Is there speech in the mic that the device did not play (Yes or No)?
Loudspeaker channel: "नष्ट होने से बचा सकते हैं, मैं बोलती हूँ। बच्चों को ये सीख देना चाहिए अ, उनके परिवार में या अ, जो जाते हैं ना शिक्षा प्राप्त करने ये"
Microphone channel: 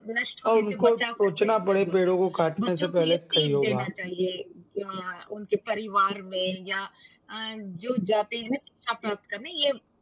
Yes